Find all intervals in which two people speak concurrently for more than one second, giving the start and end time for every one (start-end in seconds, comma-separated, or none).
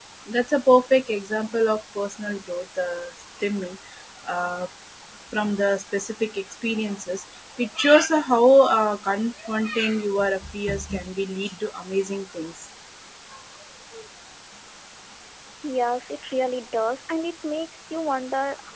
none